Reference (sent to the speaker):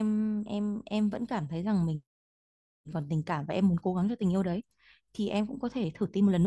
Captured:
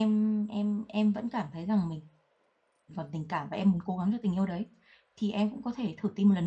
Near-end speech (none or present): none